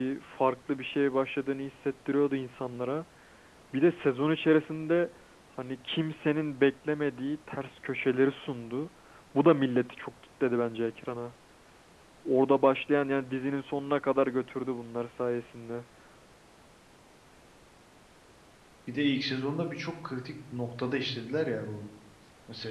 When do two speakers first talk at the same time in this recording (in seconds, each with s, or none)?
none